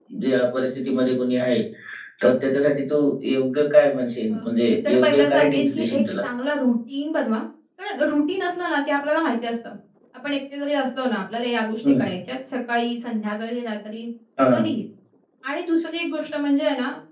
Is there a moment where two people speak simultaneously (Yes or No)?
Yes